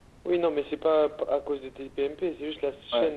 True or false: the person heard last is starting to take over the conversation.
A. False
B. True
A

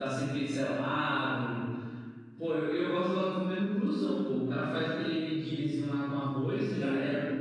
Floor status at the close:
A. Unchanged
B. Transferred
B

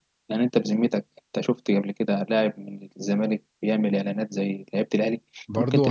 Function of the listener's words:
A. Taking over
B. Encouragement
A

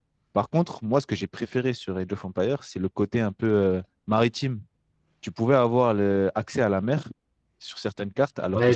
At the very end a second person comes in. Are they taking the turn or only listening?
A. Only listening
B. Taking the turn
B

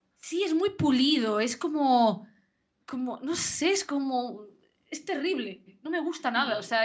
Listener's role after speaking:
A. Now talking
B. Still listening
B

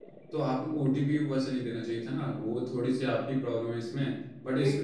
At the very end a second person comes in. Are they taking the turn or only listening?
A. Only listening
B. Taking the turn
B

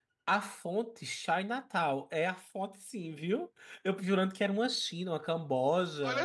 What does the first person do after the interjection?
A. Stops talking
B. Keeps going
A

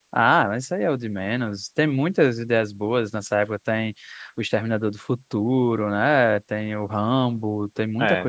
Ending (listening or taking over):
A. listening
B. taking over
B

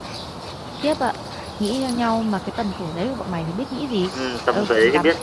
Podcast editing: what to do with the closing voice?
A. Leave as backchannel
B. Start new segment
B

